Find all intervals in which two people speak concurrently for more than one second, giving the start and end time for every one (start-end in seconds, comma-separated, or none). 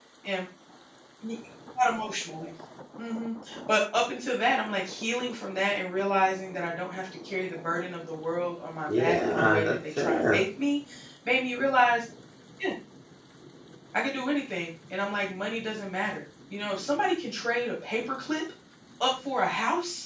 8.9-10.4